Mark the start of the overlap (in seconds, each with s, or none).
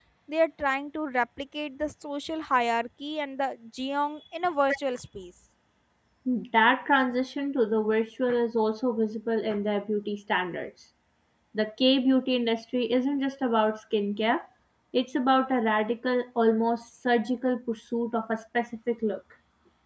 none